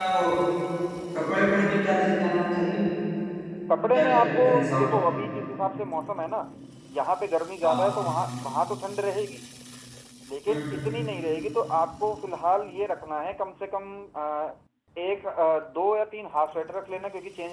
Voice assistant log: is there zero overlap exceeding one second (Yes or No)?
No